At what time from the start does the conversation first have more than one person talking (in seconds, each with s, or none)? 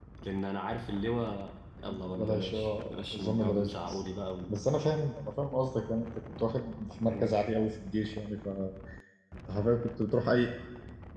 1.9 s